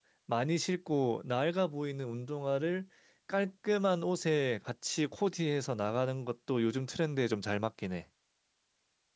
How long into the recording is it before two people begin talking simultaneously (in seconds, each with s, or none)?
none